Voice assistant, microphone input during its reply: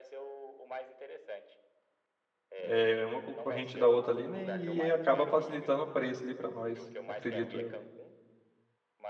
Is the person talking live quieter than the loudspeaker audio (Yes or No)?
No